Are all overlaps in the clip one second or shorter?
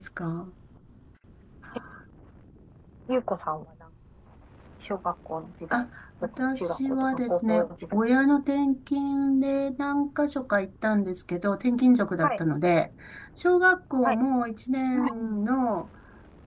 No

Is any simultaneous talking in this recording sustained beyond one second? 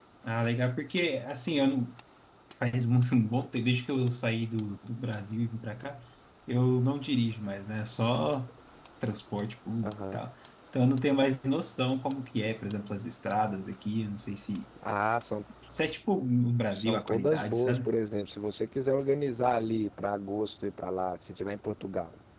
Yes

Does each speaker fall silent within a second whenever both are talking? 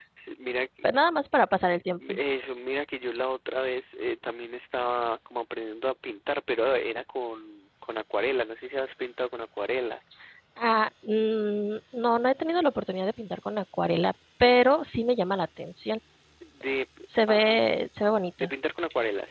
Yes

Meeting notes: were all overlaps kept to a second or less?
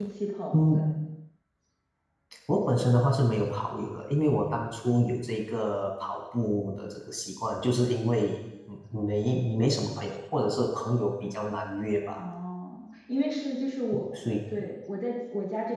Yes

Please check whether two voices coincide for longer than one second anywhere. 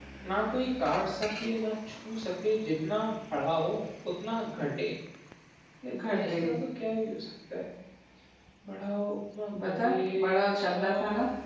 Yes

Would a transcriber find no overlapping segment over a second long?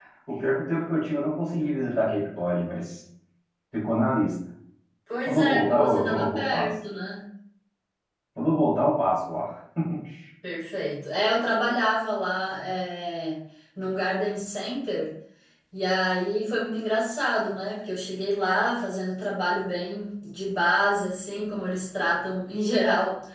No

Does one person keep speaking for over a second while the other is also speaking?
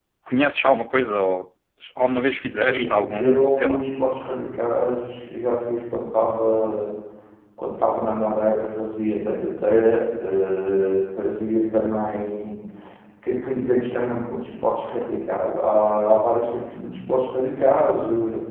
Yes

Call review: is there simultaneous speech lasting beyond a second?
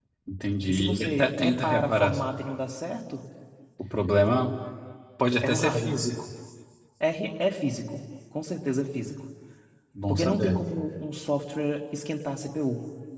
Yes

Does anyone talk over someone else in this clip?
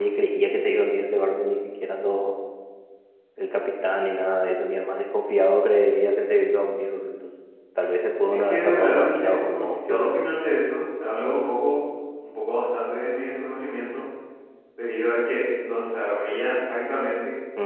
Yes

